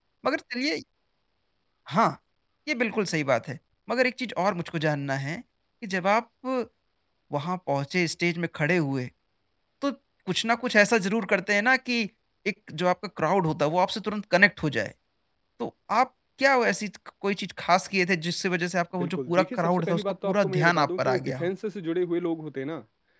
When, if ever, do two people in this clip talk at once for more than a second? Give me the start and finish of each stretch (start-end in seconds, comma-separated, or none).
19.0-21.5